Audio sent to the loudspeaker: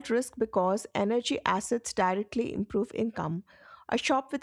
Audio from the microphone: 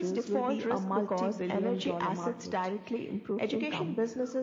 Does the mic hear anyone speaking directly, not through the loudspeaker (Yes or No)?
Yes